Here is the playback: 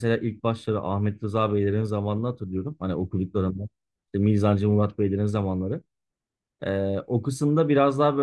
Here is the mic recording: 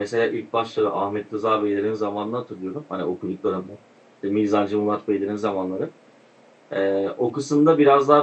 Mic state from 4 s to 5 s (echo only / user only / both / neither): echo only